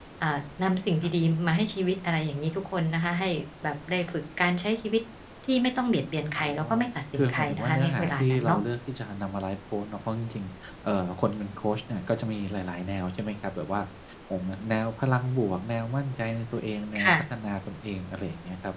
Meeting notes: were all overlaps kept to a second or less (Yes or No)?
No